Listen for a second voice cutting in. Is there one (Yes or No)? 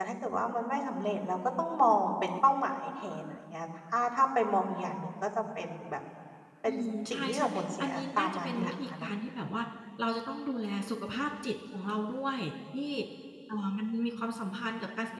Yes